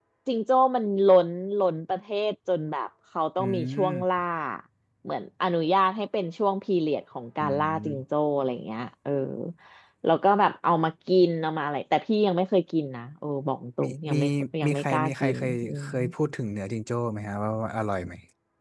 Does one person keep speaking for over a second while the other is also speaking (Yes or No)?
Yes